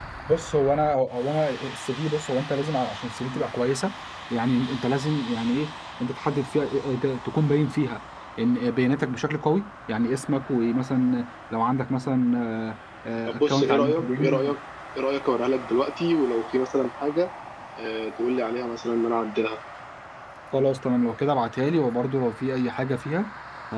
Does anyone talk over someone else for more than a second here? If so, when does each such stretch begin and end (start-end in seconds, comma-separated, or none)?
13.3-14.5